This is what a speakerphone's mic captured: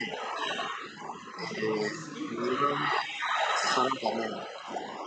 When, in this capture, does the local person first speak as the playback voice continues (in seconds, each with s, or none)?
1.3 s